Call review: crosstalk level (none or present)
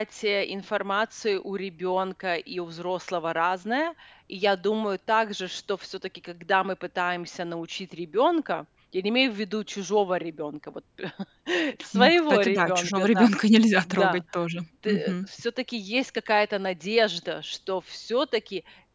present